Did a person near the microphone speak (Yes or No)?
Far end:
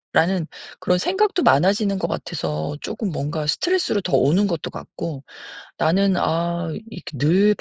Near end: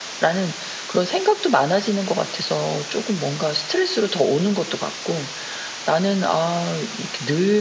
No